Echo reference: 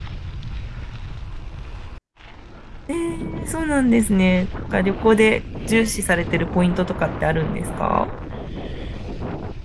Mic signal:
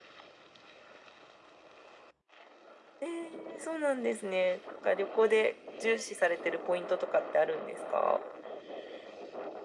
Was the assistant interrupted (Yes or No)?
No